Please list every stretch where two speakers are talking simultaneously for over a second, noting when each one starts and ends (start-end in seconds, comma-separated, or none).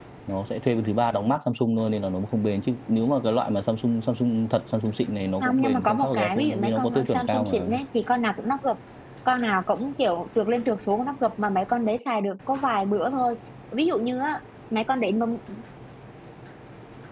5.4-7.7